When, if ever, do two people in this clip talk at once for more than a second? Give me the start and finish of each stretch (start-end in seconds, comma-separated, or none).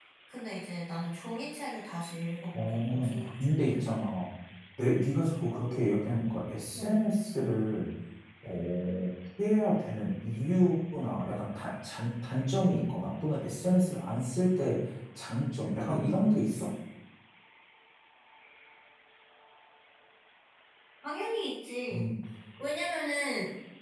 2.5-3.8